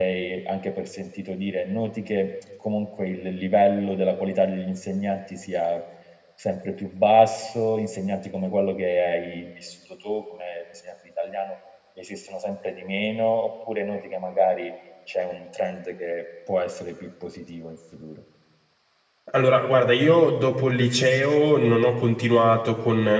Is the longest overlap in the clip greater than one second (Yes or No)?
No